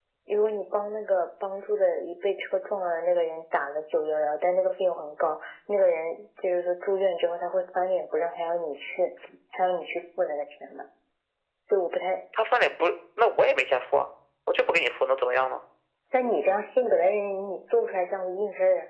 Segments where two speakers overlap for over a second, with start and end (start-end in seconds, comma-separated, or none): none